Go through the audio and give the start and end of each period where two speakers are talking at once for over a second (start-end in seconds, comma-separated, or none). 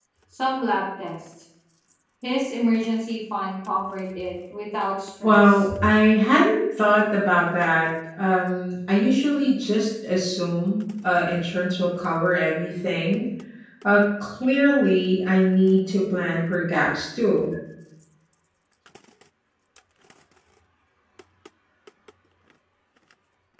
none